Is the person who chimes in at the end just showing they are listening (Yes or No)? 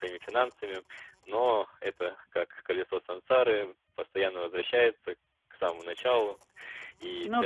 Yes